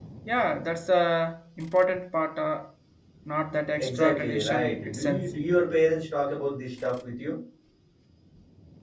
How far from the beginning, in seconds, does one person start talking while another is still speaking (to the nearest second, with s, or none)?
4 s